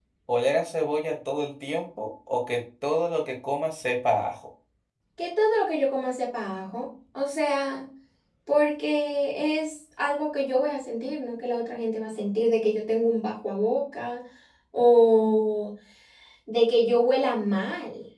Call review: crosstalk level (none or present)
none